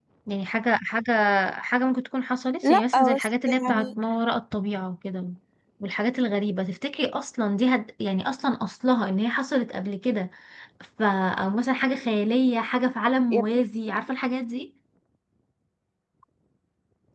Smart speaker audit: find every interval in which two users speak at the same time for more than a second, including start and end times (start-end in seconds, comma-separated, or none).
2.6-3.9